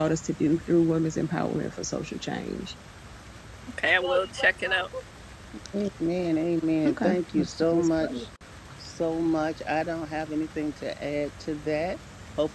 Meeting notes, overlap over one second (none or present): present